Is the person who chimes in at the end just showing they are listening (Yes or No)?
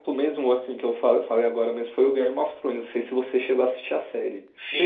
No